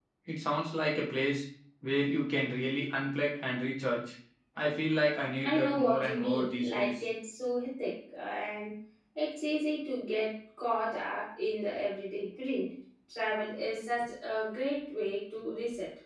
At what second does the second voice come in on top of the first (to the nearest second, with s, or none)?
5 s